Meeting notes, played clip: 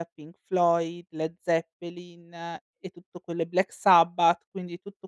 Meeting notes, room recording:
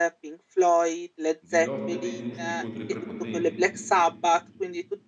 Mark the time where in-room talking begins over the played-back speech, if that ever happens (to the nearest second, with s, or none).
1 s